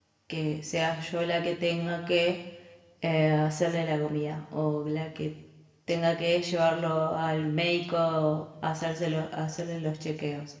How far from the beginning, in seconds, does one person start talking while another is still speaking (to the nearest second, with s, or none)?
none